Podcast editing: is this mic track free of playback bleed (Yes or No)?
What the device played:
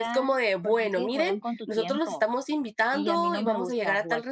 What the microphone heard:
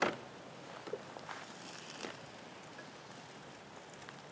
Yes